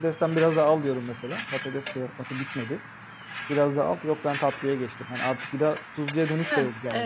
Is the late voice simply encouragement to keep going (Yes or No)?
No